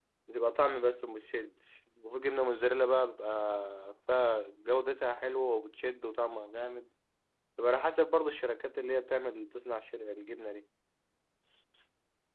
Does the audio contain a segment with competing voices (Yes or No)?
No